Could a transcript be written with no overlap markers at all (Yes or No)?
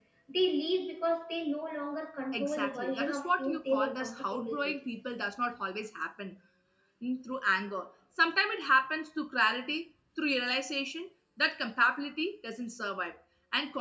No